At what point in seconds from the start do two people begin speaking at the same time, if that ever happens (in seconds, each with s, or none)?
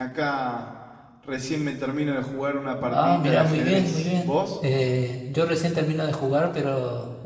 2.9 s